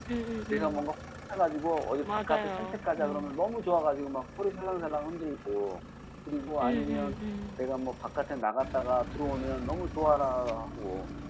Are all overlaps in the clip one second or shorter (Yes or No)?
No